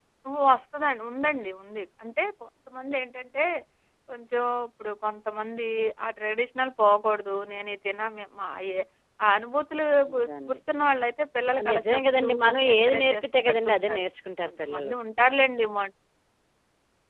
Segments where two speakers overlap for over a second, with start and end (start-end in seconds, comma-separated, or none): 11.5-14.0